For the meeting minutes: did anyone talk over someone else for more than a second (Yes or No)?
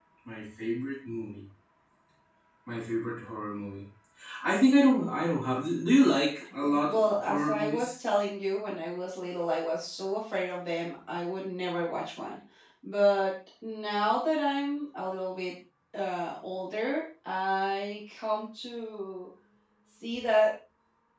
Yes